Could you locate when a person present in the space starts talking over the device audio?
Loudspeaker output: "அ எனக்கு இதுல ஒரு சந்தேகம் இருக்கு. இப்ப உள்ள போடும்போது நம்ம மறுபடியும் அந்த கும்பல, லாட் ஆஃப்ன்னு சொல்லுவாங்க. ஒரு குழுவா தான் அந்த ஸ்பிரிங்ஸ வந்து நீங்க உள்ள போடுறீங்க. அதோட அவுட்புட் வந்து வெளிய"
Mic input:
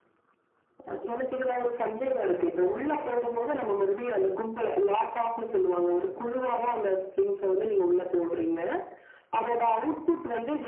none

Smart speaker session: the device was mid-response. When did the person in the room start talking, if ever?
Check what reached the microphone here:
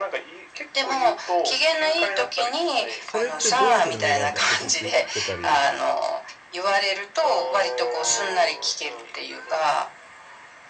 3.0 s

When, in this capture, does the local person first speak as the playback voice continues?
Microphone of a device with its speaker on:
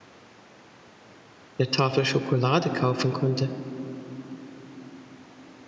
1.6 s

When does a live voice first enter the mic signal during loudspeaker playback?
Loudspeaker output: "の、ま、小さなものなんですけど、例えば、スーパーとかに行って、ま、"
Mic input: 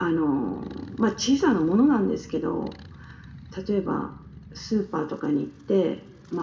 none

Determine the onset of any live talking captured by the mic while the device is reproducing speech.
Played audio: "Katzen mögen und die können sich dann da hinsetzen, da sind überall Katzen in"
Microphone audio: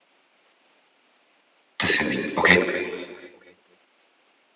1.8 s

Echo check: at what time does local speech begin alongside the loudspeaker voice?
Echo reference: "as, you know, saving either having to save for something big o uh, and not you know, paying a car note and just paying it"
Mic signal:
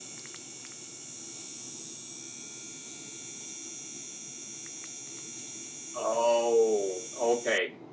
5.9 s

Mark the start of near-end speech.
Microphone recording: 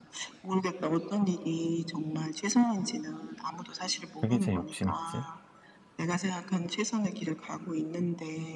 4.2 s

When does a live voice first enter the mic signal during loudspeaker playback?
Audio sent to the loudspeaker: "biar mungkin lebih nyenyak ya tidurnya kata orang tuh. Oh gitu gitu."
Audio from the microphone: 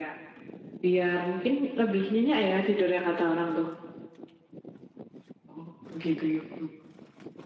none

